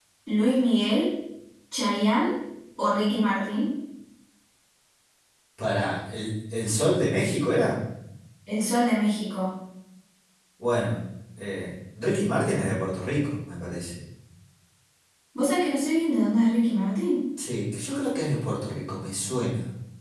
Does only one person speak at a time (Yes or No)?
Yes